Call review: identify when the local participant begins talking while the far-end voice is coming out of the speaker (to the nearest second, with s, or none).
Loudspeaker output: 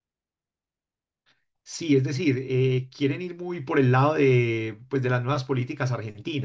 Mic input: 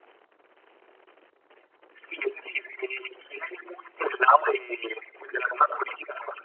none